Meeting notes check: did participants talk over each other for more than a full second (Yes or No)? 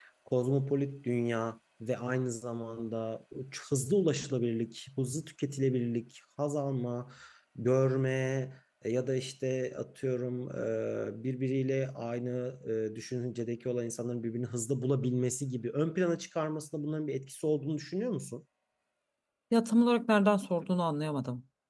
No